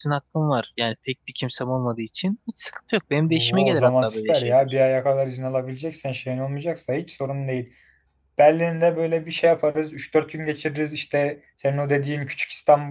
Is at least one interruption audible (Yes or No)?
Yes